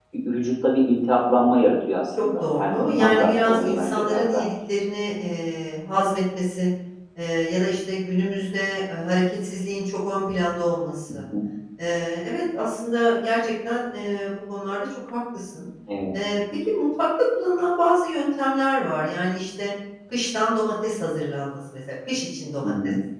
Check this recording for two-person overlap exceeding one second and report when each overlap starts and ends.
2.2-4.4

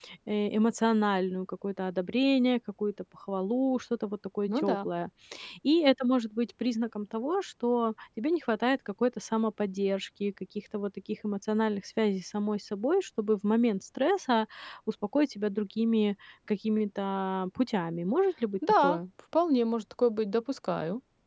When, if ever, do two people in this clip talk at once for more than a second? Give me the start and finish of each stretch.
none

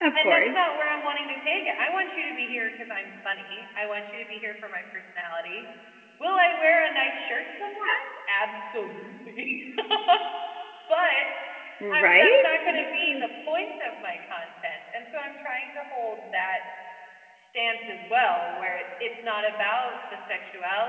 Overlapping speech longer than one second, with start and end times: 11.9-13.2

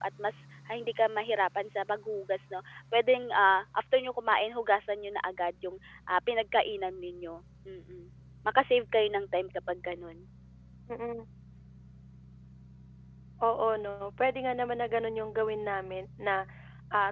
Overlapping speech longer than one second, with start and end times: none

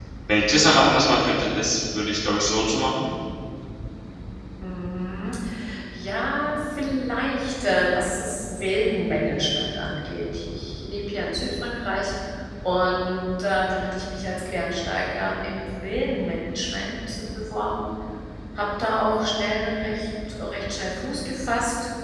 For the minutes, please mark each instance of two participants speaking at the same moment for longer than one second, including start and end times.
none

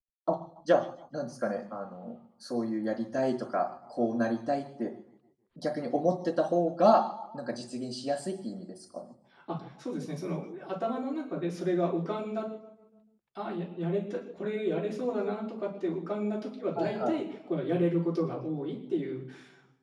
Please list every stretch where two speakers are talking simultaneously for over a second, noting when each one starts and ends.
none

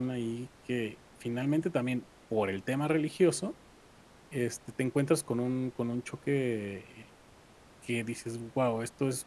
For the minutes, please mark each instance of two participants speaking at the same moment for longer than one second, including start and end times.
none

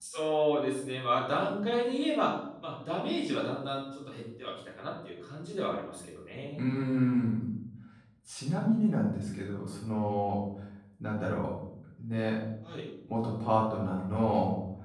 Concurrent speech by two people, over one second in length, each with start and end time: none

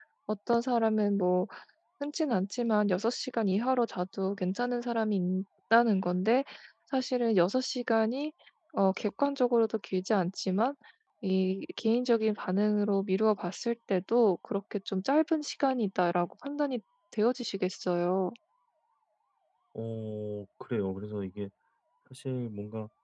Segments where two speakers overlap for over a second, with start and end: none

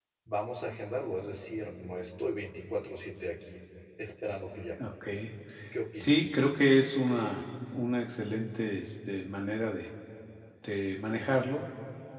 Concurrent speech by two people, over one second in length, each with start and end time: none

